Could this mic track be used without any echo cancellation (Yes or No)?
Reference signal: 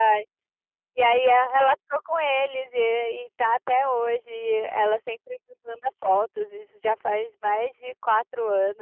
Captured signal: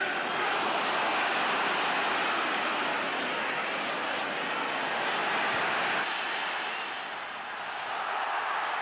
Yes